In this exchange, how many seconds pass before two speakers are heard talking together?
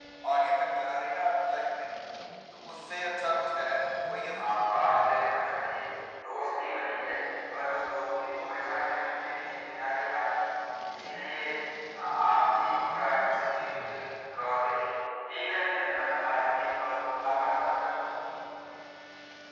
4.4 s

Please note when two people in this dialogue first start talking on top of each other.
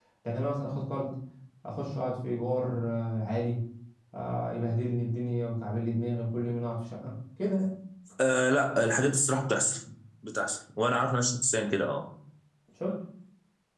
none

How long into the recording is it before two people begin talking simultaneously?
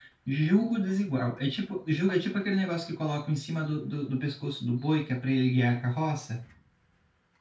none

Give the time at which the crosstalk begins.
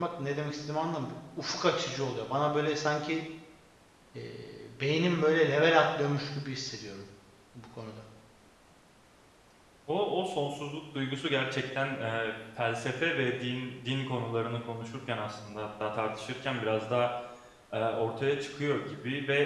none

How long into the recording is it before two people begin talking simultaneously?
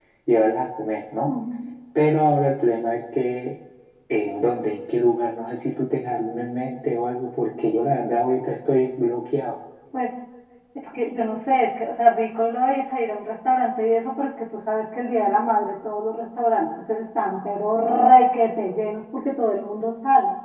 none

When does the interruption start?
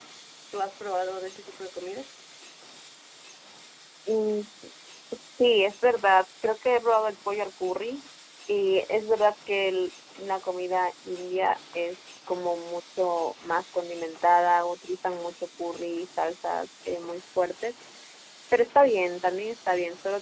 none

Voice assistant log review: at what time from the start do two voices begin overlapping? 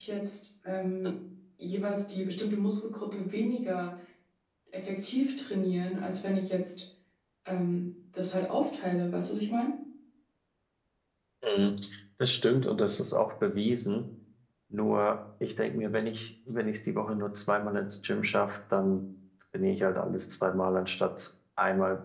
none

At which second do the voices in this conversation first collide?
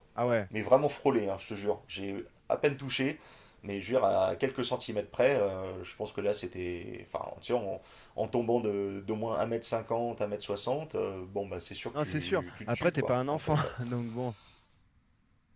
11.9 s

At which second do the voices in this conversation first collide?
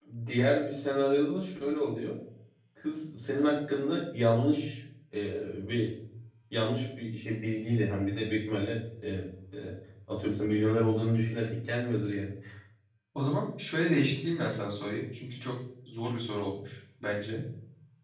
none

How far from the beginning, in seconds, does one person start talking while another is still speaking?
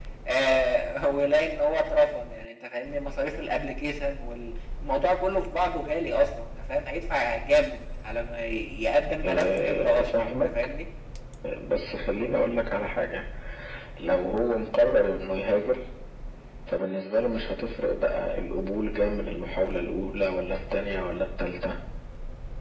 9.2 s

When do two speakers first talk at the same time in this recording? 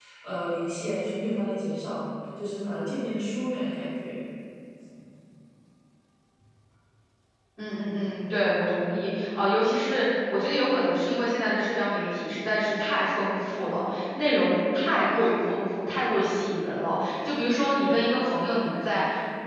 none

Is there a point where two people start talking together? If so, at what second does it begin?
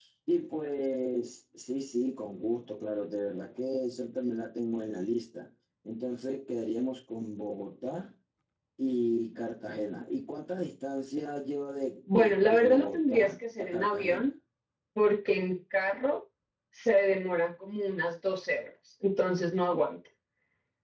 12.1 s

